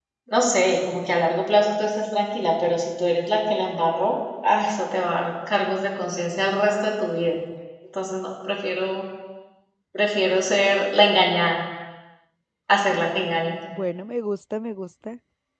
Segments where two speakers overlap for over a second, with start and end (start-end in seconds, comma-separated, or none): none